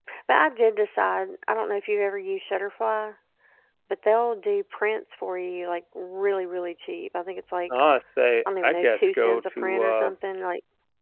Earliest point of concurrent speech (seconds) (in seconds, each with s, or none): 8.6 s